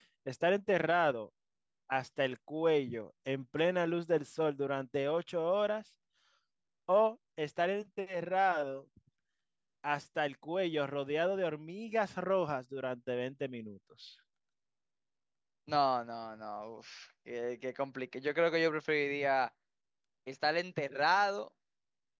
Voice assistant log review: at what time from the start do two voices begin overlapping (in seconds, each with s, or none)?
none